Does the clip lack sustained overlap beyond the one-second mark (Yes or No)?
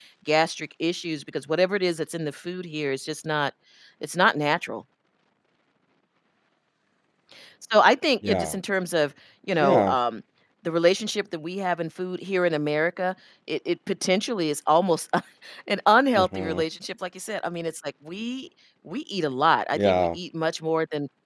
Yes